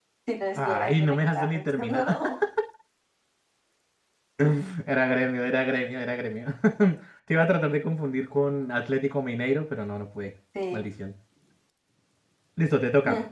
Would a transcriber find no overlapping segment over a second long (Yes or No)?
No